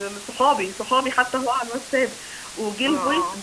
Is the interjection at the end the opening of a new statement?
No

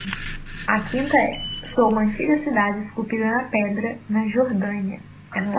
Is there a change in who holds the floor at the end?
Yes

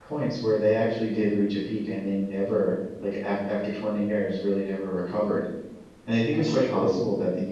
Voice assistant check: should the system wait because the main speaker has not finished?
Yes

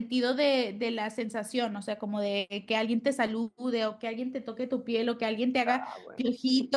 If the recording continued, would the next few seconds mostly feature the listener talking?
No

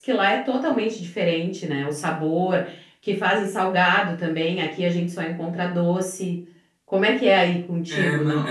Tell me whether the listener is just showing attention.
No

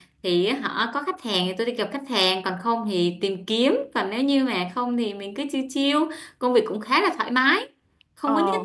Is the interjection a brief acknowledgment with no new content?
Yes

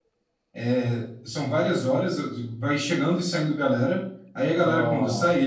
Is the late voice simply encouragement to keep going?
Yes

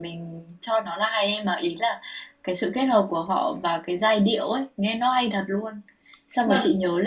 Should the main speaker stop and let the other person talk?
No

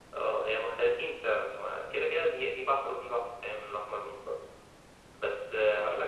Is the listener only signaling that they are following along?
Yes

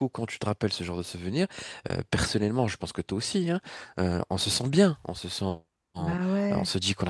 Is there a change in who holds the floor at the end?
No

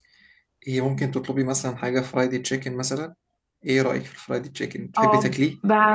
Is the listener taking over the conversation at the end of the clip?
Yes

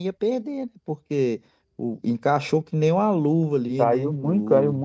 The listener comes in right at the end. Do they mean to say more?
Yes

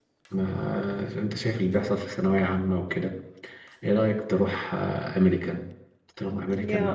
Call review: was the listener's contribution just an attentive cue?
Yes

